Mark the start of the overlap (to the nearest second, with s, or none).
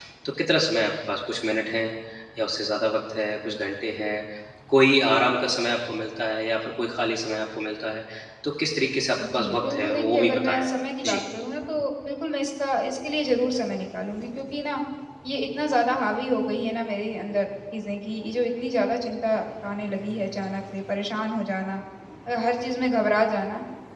9 s